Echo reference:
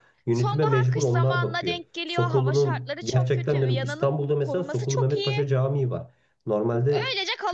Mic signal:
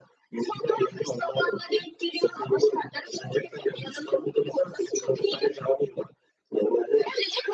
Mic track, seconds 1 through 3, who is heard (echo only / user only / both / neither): echo only